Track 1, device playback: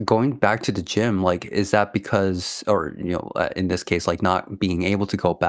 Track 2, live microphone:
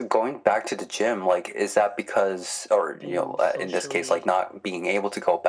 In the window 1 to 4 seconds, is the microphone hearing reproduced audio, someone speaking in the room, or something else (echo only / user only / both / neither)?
both